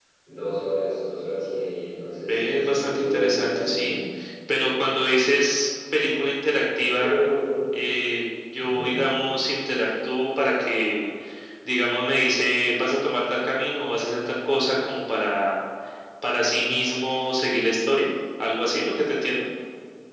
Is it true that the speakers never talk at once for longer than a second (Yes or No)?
No